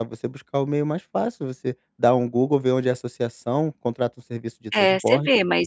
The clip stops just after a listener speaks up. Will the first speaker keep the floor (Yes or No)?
No